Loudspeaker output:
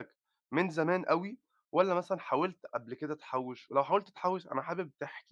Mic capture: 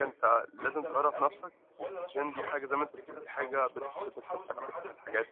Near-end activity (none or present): present